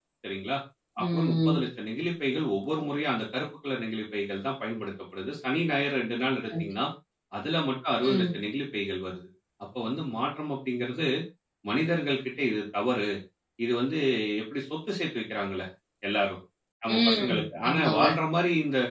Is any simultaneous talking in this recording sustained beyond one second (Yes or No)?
Yes